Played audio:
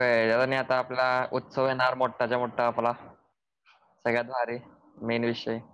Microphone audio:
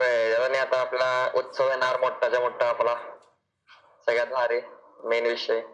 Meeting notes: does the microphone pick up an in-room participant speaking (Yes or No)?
No